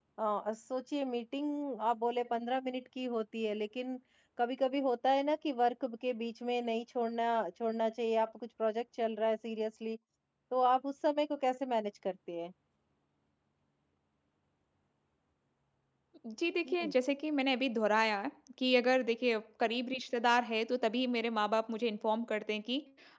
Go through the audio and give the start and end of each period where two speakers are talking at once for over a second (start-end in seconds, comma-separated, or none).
none